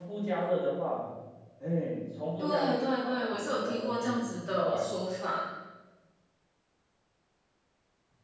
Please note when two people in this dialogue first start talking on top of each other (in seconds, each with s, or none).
2.4 s